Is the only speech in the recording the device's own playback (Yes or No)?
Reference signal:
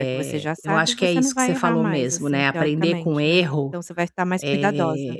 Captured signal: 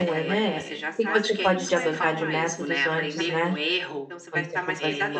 No